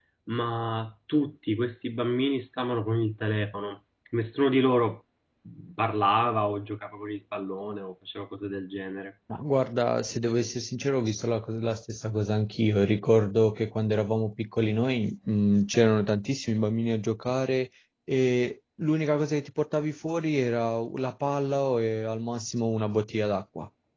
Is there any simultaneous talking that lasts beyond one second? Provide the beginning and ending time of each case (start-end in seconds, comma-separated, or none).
none